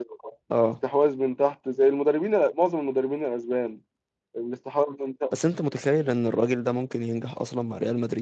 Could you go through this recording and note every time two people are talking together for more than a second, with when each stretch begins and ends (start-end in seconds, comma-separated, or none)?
none